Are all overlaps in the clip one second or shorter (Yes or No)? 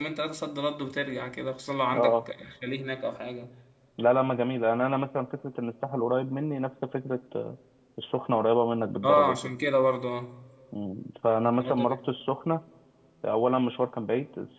Yes